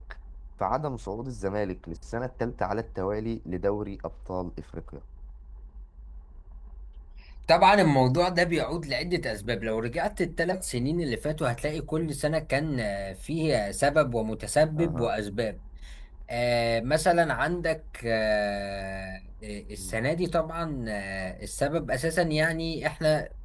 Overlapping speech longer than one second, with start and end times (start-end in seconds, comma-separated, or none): none